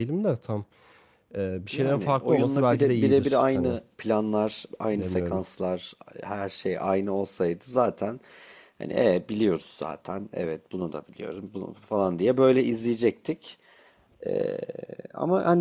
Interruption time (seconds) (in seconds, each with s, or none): 1.7 s